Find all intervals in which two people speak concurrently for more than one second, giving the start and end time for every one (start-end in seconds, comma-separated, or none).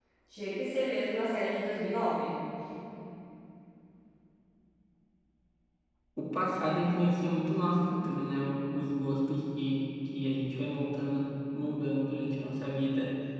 none